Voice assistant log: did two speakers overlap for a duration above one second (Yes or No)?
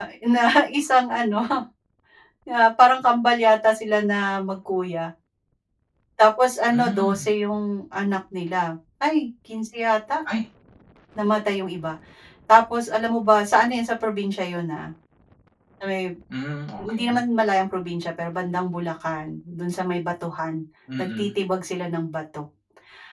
No